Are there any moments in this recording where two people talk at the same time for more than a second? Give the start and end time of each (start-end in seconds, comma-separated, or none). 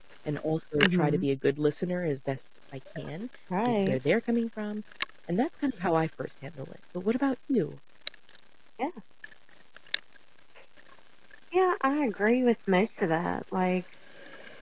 none